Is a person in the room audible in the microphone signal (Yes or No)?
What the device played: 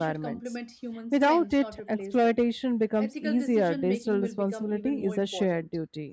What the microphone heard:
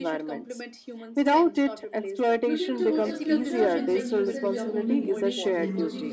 Yes